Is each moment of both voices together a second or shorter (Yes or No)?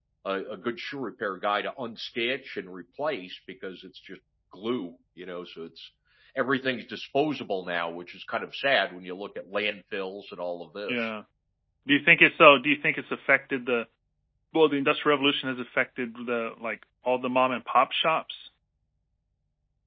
Yes